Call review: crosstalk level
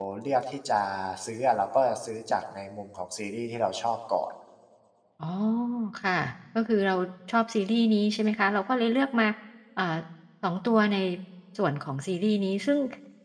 none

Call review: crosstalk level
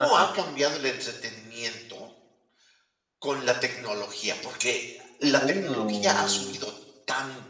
present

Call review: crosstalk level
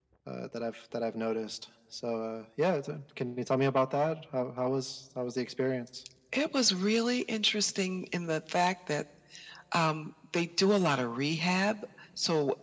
none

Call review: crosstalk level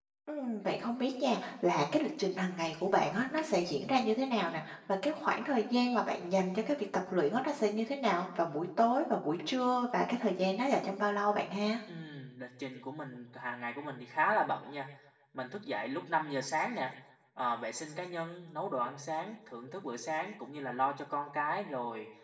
none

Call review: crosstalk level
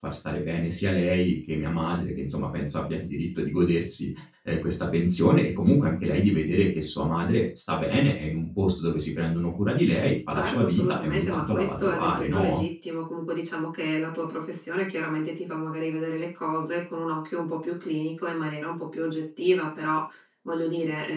present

